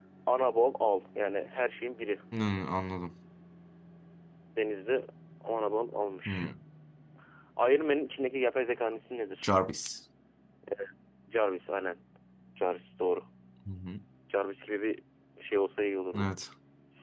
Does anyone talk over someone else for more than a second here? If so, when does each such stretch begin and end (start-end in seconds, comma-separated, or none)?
none